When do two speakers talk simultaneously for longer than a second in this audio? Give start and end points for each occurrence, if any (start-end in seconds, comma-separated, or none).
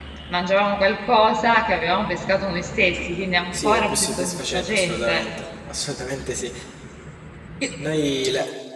3.6-5.2